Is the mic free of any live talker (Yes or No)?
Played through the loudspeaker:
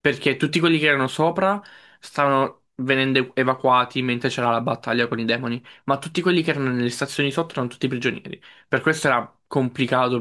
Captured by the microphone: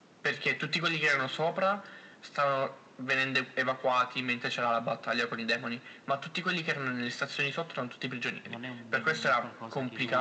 No